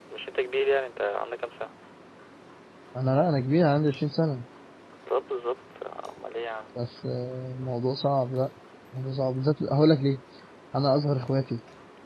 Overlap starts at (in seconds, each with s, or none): none